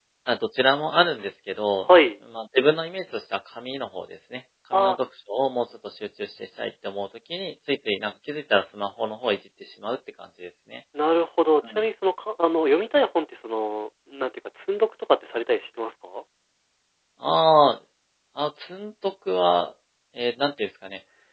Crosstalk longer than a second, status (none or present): none